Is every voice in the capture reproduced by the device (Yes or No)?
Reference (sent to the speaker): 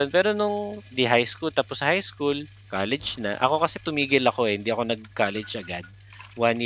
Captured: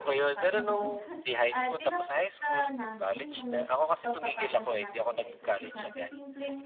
No